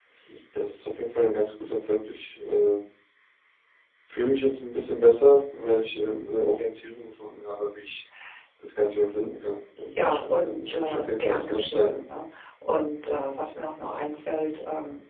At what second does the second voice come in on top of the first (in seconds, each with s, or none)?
9.9 s